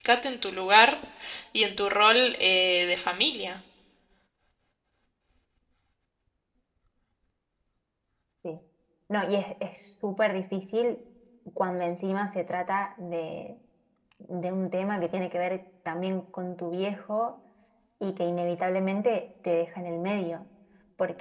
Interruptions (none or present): none